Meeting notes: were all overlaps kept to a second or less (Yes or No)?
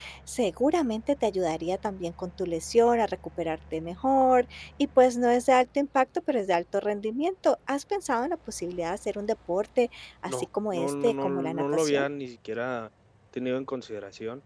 No